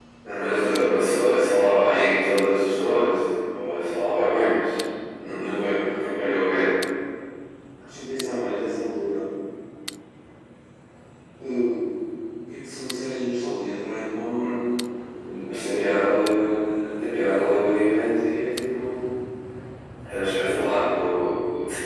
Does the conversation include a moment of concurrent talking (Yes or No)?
Yes